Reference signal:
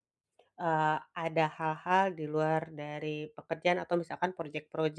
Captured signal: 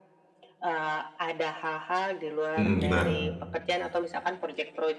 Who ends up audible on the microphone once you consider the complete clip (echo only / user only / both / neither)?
both